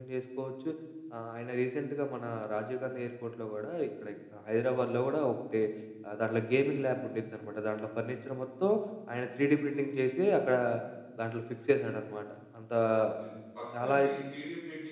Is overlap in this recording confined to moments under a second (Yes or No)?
Yes